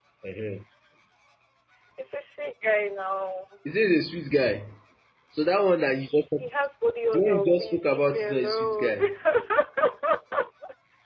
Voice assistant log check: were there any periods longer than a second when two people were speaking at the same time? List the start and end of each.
7.2-9.0

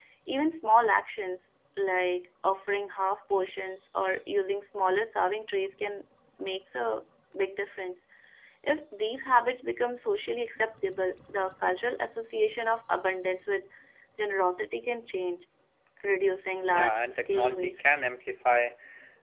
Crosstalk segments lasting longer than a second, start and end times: 16.7-18.0

